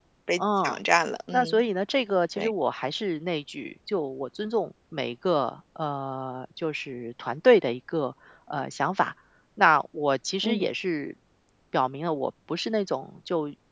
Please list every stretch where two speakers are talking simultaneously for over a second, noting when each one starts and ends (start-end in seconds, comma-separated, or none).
none